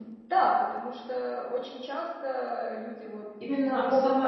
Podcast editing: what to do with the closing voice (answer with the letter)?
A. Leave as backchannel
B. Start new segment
B